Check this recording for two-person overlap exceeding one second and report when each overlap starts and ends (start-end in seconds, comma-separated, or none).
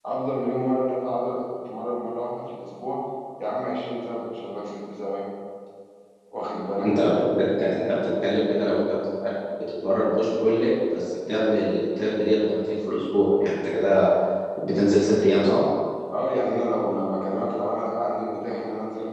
none